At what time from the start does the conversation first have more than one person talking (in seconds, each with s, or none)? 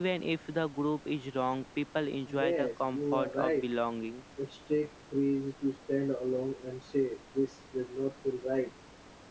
2.3 s